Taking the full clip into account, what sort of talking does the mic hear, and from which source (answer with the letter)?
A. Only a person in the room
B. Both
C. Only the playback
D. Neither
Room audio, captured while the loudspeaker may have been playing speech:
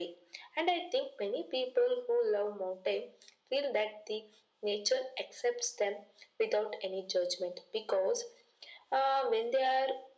C